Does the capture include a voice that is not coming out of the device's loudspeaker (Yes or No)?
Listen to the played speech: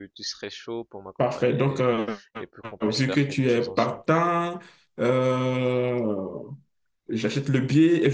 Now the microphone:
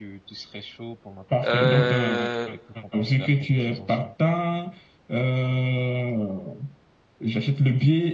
Yes